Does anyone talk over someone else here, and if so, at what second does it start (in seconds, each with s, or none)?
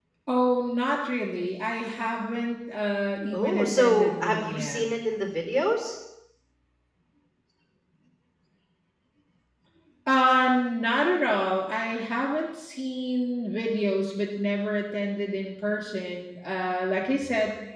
3.3 s